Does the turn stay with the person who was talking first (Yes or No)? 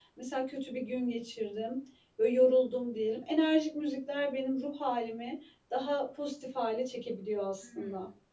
No